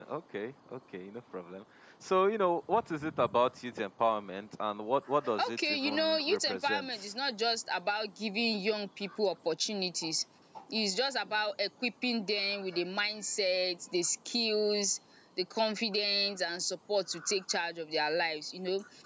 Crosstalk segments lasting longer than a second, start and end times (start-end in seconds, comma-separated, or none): 5.5-7.1